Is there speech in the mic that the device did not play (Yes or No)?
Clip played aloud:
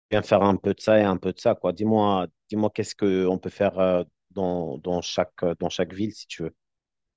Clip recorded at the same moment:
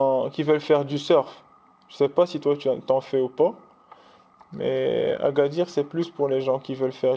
Yes